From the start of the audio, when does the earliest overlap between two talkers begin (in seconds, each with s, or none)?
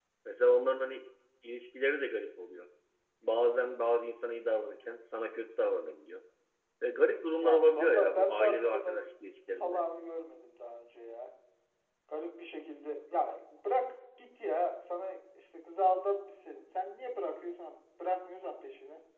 7.4 s